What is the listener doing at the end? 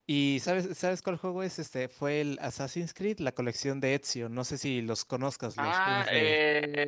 taking over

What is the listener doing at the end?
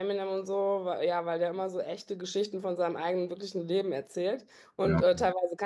listening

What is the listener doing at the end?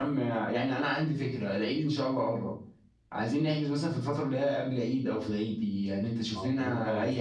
listening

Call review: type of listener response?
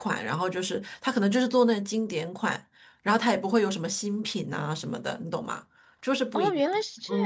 taking over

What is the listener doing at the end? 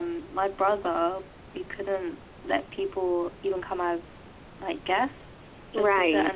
listening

